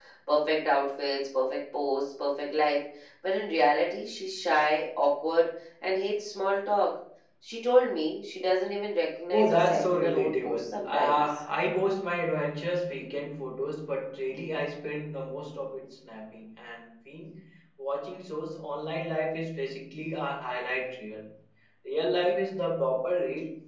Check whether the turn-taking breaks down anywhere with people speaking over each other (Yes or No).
Yes